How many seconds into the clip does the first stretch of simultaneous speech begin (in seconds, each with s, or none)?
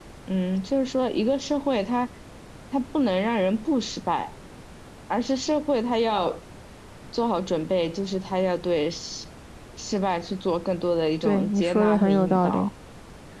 11.2 s